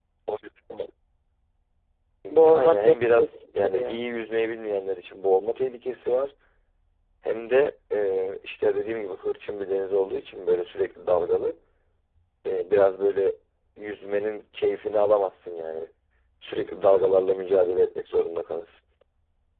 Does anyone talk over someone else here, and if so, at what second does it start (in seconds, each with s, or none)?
2.5 s